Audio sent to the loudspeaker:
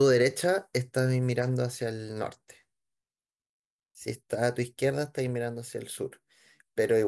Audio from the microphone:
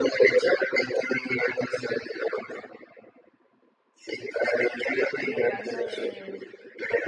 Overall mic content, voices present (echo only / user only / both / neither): both